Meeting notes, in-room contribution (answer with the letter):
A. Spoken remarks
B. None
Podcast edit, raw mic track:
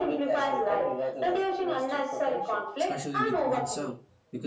A